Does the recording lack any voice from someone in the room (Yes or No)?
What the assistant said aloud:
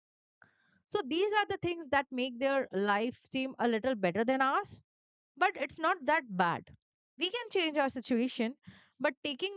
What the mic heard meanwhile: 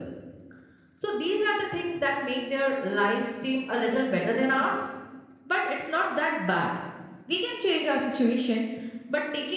Yes